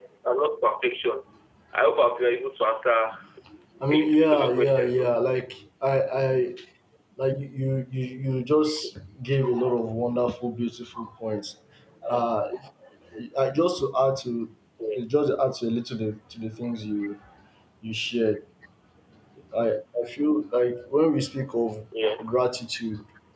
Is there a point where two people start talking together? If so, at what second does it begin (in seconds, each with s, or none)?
3.9 s